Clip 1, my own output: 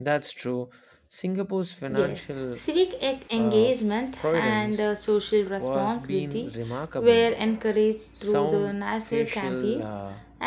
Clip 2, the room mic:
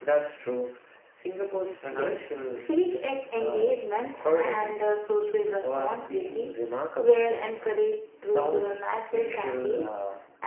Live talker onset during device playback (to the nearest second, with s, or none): none